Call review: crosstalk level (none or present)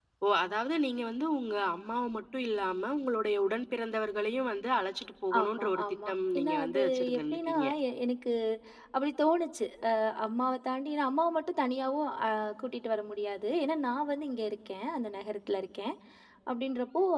present